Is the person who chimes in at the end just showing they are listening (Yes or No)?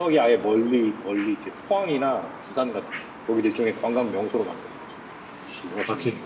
No